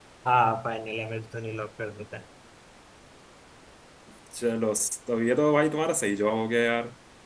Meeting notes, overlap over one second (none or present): none